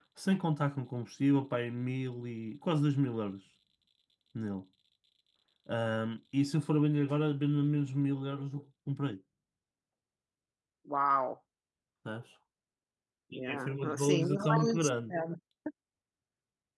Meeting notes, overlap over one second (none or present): present